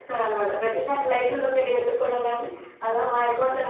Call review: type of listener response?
listening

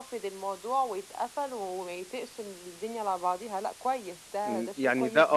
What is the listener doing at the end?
taking over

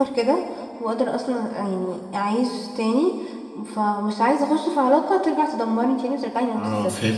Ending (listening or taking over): taking over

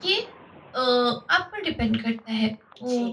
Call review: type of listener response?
listening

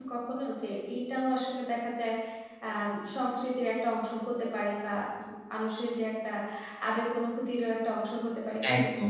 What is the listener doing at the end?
taking over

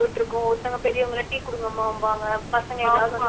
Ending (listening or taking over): taking over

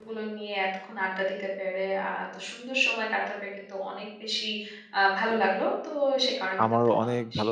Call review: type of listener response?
taking over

